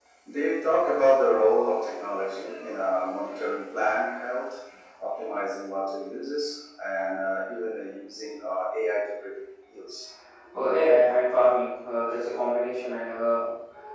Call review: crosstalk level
none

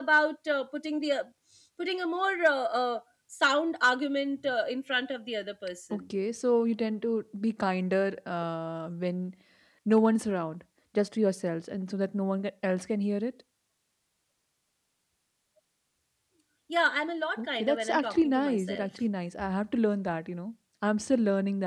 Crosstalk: present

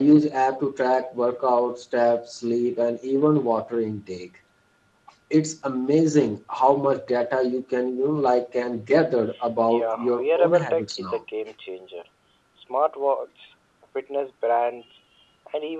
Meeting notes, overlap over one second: present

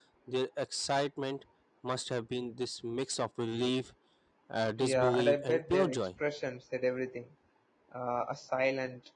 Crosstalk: present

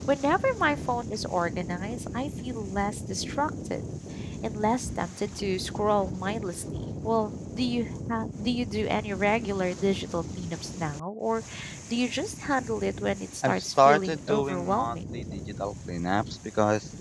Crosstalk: present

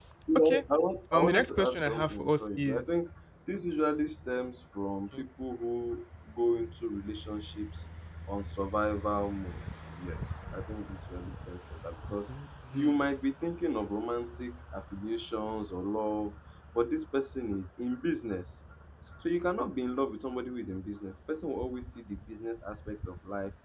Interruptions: present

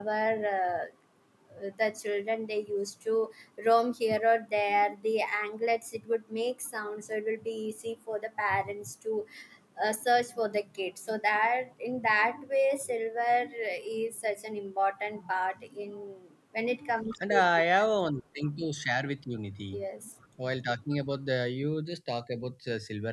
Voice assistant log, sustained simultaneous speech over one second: none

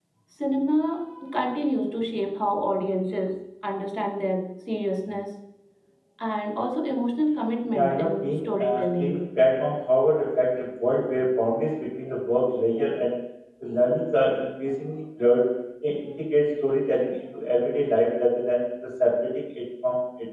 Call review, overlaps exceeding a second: present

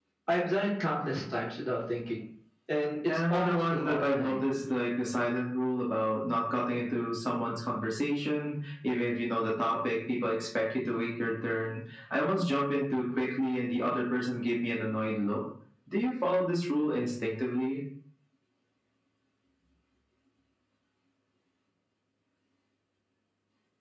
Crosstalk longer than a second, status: present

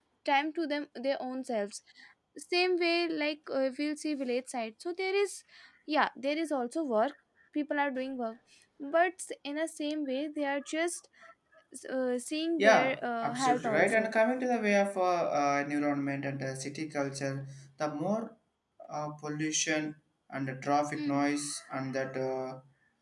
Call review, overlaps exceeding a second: present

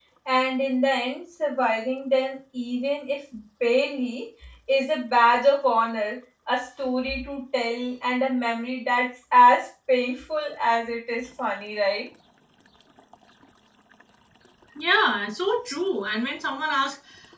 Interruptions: none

